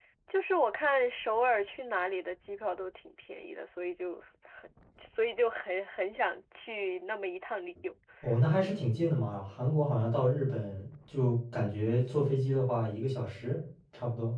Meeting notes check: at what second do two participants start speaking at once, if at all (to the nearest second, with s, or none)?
none